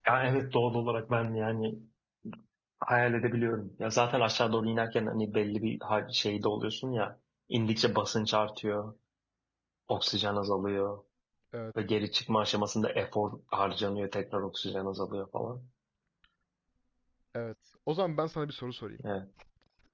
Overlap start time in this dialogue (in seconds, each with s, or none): none